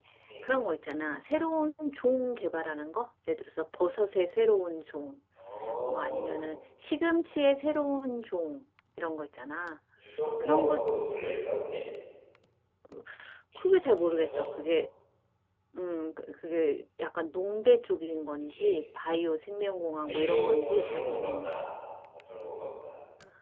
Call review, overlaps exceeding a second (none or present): present